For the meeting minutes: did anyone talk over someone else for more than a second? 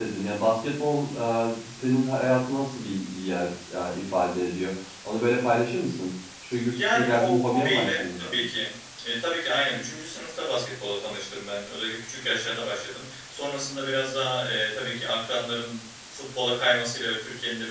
Yes, from 6.7 s

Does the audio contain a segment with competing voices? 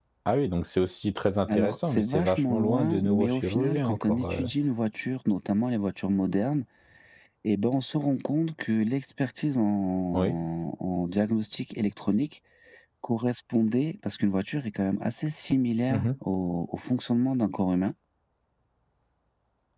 Yes, from 1.5 s

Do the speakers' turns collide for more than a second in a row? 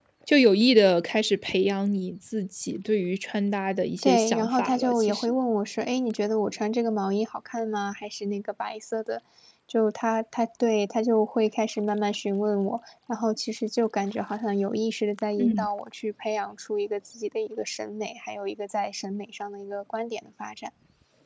Yes, from 4.0 s

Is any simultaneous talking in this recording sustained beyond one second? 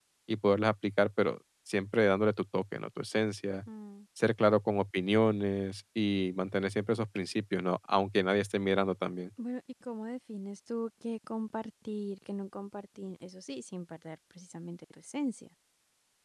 No

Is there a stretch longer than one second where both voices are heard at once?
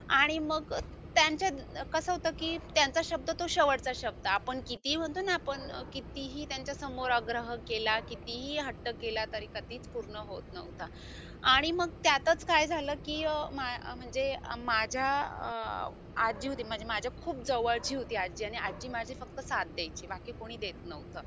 No

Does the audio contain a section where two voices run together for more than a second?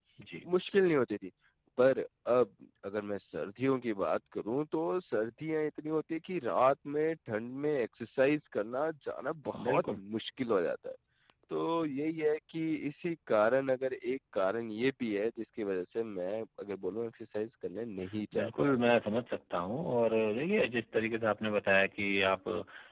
No

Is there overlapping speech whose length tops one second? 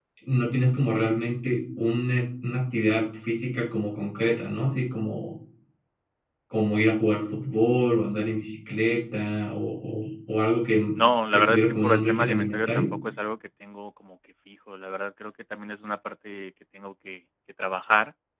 Yes, from 11.3 s

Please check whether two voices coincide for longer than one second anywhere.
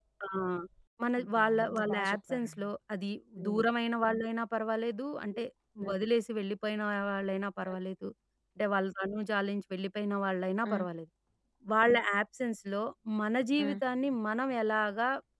Yes, from 1.2 s

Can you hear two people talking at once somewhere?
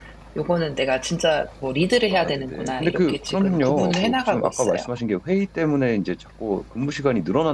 Yes, from 2.1 s

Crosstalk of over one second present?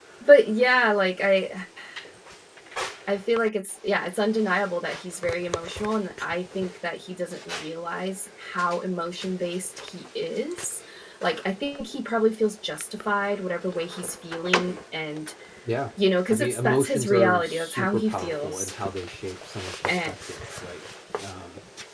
Yes, from 16.3 s

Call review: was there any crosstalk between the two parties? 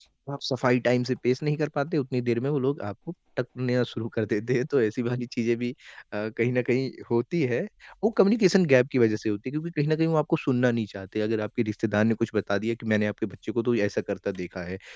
No

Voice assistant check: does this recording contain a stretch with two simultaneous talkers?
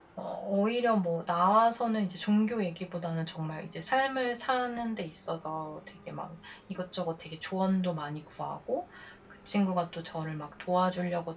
No

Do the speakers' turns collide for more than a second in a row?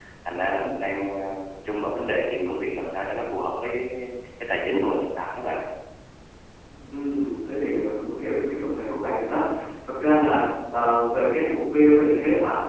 No

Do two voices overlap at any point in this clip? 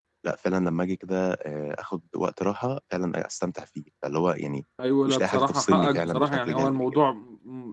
Yes, from 5.1 s

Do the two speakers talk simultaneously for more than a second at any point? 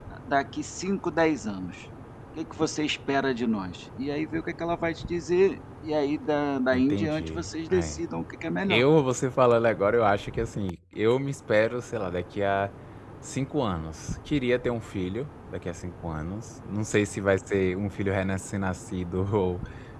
Yes, from 6.7 s

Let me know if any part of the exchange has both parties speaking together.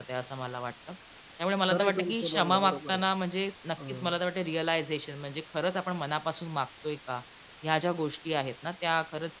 Yes, from 1.7 s

